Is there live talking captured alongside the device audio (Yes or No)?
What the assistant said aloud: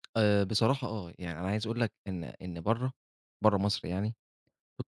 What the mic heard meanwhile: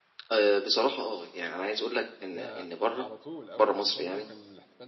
Yes